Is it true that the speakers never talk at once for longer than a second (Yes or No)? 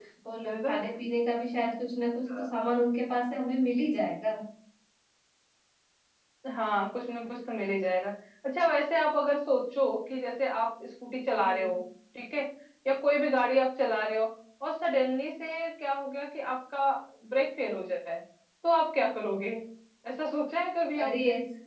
Yes